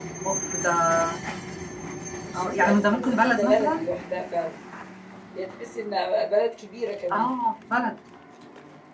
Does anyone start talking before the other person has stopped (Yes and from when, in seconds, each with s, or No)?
Yes, from 2.4 s